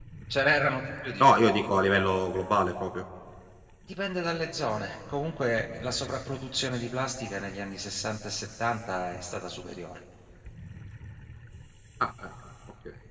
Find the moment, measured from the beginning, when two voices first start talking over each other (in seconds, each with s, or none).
none